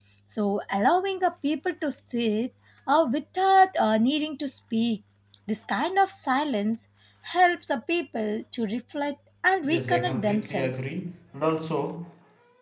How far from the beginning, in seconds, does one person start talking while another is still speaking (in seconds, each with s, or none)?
9.6 s